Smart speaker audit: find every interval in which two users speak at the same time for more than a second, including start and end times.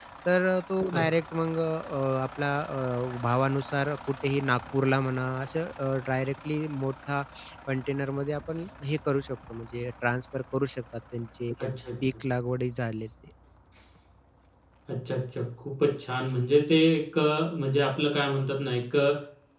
none

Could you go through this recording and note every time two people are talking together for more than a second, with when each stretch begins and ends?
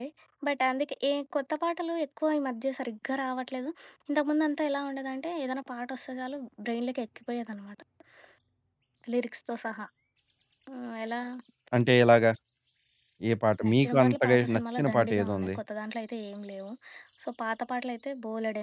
13.7-15.5

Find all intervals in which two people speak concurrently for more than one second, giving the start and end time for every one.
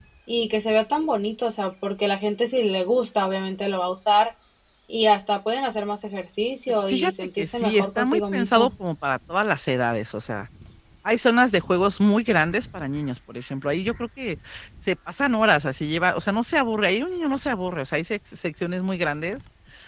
6.9-8.7

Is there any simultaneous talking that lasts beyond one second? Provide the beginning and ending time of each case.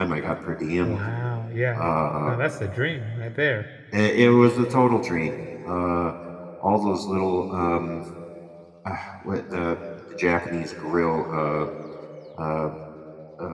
none

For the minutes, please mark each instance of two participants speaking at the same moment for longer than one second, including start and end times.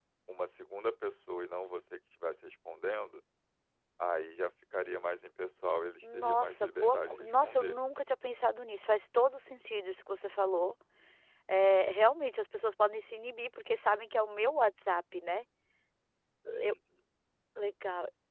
6.1-7.8

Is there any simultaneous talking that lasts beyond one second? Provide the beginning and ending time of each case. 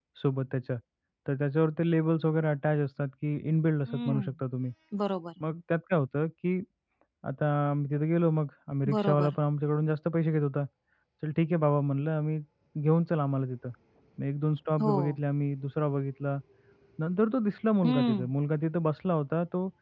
none

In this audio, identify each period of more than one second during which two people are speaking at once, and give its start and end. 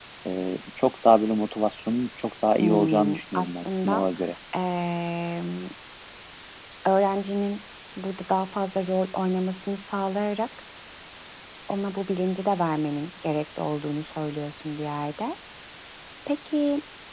2.6-4.0

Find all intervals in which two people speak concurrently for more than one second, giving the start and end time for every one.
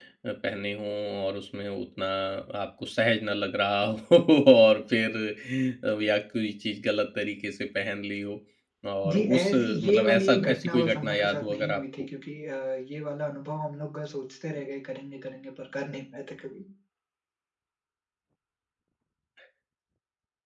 9.1-12.1

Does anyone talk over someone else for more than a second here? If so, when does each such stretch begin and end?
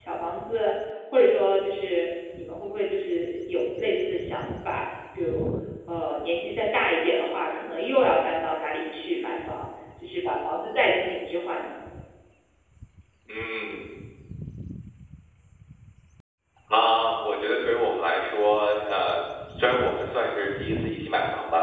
none

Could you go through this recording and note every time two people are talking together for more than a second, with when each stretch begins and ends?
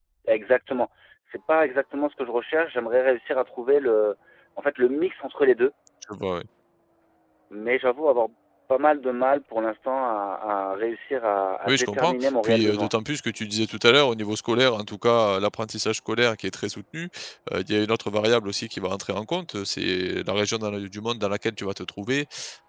11.7-12.9

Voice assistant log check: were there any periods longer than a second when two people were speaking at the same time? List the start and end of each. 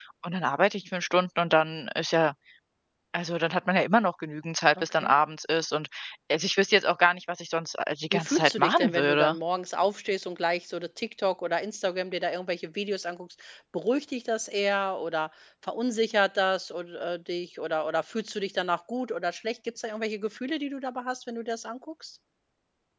8.1-9.3

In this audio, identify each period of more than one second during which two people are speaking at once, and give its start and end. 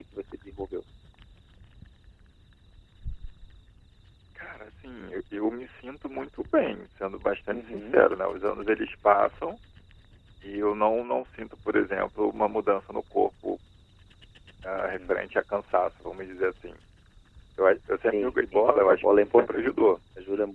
18.1-19.7

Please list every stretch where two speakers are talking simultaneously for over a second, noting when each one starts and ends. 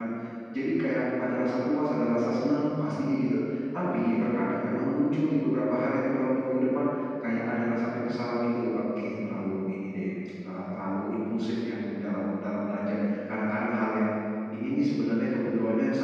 none

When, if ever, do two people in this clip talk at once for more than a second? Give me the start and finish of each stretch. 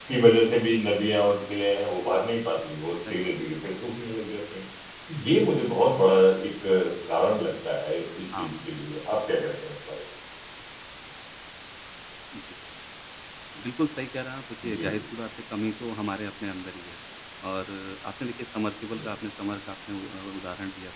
none

